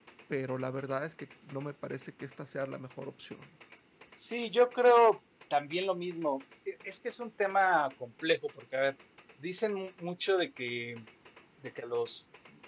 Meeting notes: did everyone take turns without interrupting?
Yes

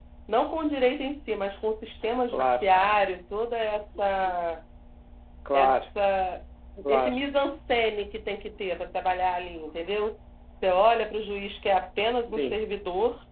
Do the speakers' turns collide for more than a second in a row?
No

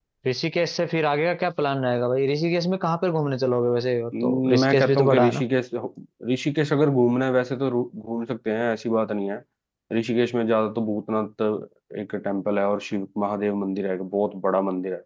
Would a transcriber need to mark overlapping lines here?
Yes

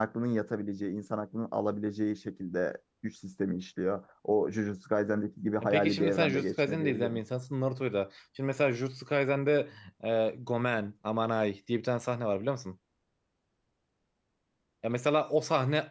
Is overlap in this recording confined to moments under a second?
No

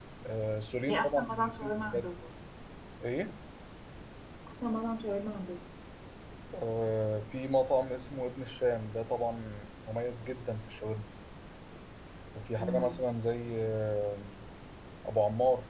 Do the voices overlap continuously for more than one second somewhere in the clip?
Yes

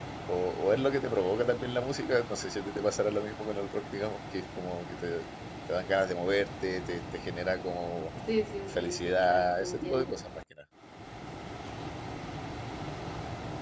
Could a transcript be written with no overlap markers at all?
No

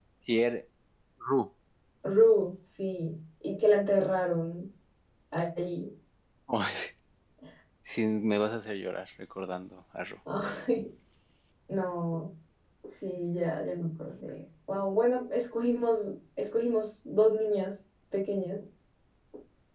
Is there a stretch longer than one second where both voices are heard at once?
No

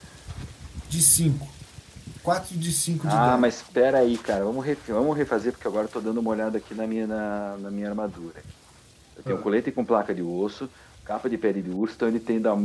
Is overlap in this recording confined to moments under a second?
Yes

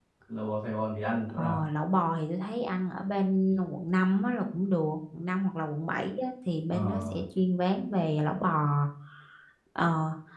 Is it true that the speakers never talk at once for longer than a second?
Yes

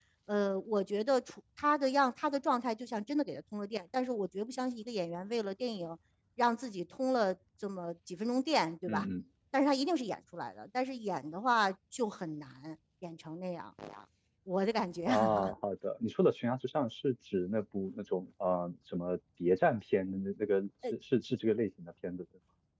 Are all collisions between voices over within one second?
Yes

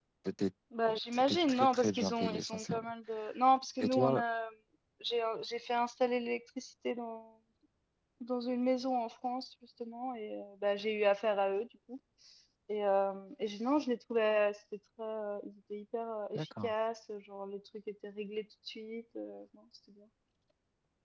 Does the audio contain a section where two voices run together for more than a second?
Yes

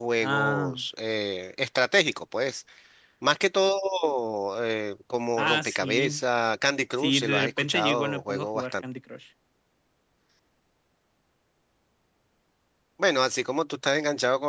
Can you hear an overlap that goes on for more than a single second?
Yes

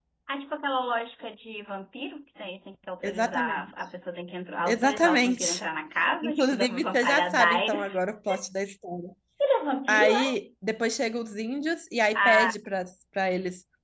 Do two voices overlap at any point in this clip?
Yes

